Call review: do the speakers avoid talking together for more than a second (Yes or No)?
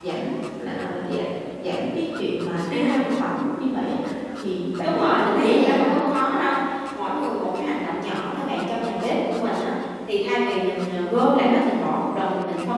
No